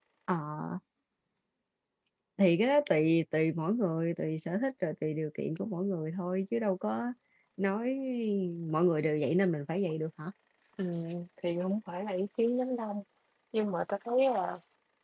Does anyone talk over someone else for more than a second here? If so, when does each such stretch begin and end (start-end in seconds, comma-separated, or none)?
none